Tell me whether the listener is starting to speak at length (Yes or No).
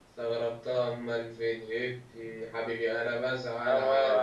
Yes